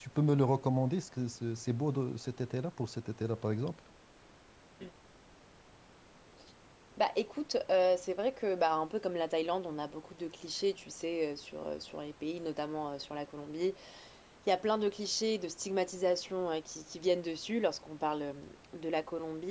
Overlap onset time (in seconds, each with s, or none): none